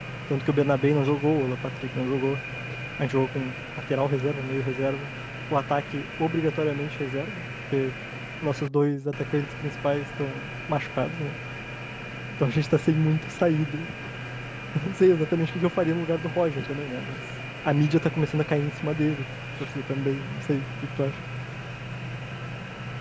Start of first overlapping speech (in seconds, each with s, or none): none